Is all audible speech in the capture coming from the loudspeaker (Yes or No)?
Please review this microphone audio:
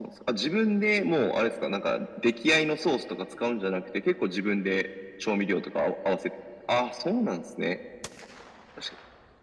Yes